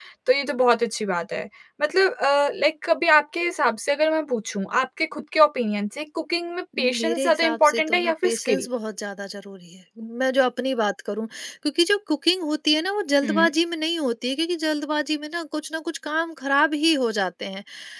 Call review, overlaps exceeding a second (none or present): present